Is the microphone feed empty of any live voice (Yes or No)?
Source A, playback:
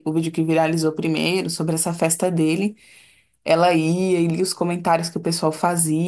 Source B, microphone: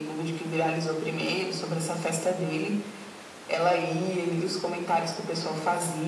Yes